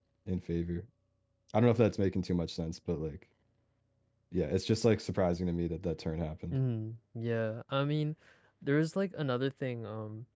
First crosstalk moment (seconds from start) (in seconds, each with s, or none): none